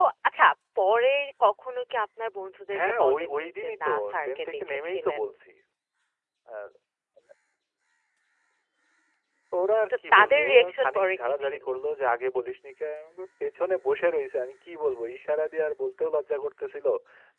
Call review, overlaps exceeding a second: present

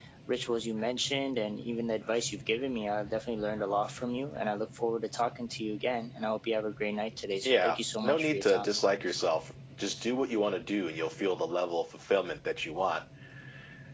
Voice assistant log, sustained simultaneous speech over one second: present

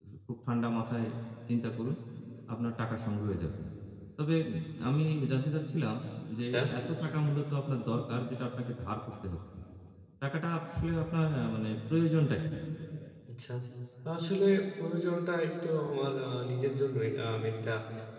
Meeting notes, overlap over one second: none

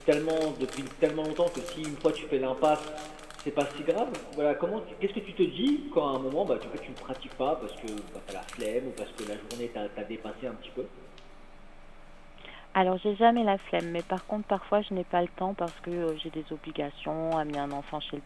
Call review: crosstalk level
none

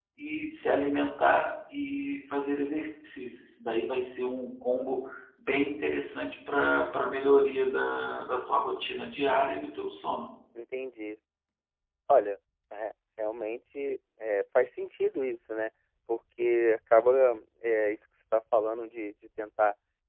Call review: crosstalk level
none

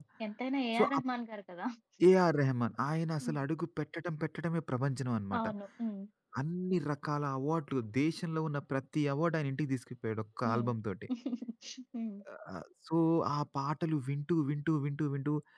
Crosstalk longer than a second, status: none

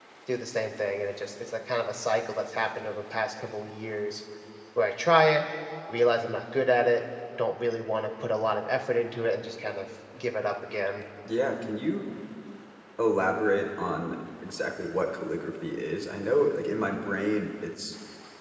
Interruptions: none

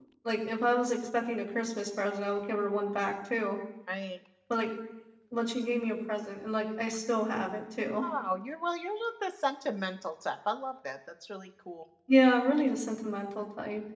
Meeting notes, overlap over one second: none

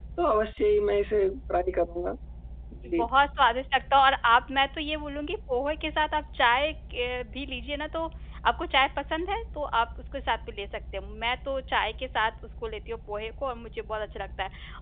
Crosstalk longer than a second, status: none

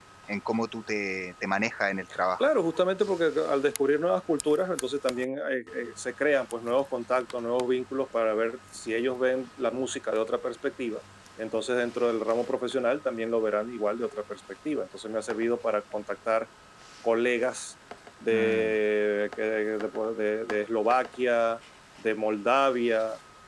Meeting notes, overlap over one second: none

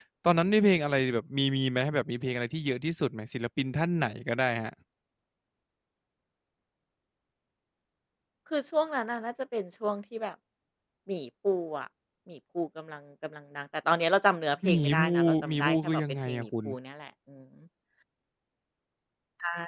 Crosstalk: present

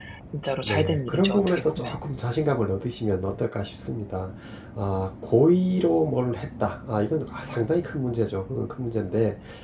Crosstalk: present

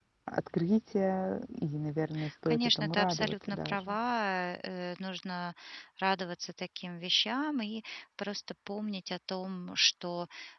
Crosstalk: present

